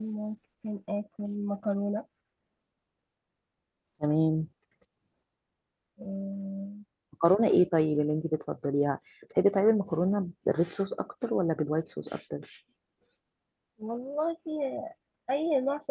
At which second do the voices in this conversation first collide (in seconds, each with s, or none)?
none